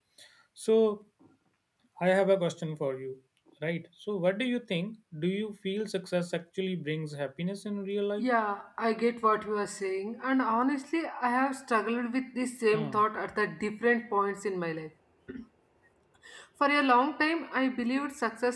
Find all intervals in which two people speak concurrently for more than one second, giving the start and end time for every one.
none

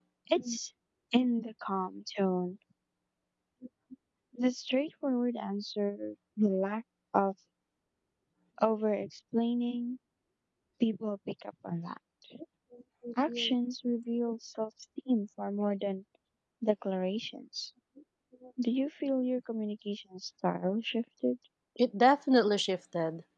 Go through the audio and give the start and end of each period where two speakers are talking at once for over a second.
none

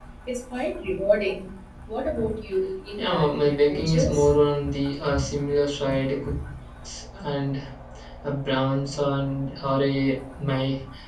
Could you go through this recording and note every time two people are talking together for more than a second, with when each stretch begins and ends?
3.0-4.3

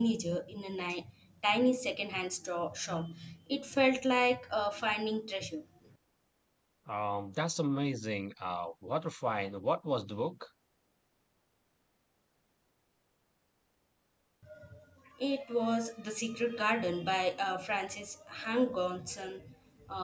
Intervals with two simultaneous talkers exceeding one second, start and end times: none

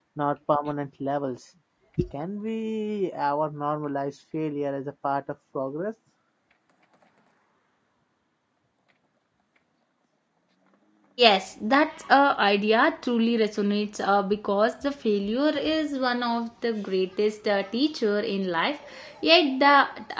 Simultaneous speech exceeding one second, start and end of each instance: none

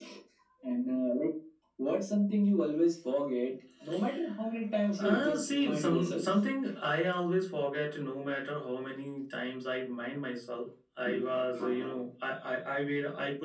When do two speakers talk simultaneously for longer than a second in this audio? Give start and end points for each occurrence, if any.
5.0-6.2

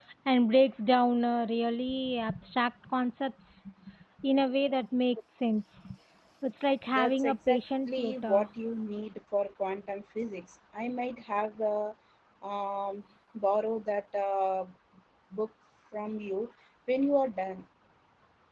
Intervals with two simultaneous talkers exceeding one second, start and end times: 6.9-8.5

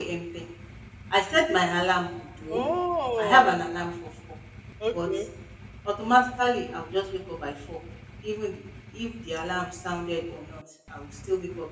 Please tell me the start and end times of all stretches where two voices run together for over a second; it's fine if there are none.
none

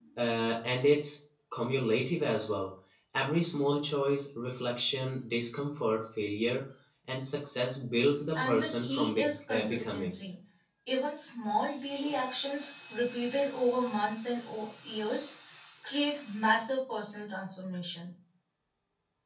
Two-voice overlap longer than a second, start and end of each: 8.4-10.2

